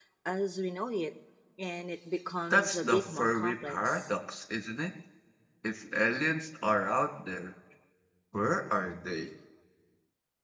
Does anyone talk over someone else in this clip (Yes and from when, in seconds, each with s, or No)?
Yes, from 2.5 s